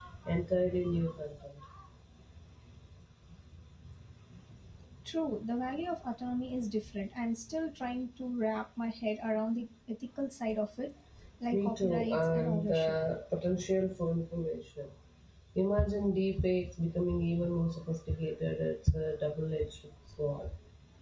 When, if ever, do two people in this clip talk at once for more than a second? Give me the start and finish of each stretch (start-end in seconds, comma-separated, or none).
11.5-12.9